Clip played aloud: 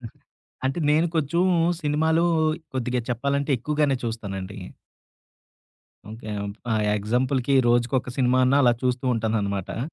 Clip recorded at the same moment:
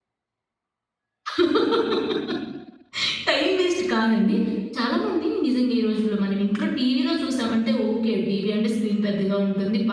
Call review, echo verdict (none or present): none